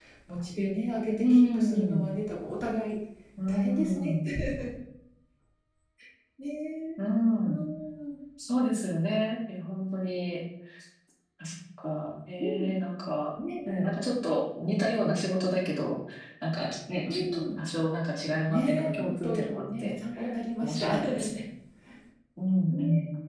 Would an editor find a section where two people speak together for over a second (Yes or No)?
Yes